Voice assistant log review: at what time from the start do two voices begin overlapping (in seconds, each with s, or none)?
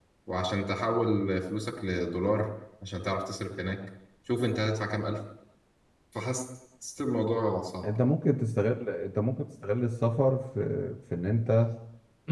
none